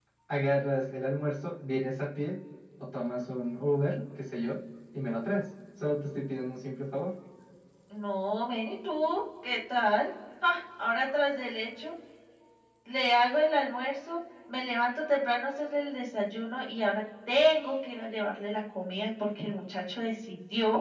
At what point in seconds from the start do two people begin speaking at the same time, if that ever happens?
none

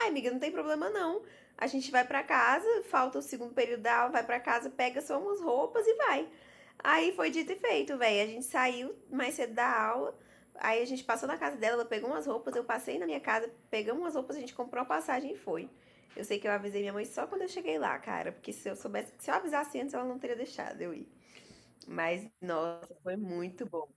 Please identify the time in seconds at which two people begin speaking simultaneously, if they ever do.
none

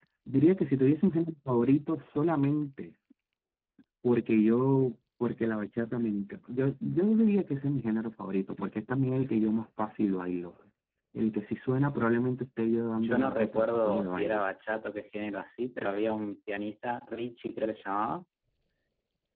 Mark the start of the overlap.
13.0 s

